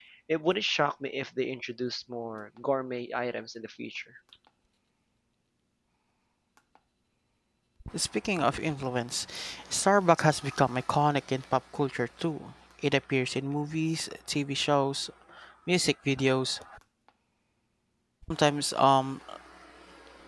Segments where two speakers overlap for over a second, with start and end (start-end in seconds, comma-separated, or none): none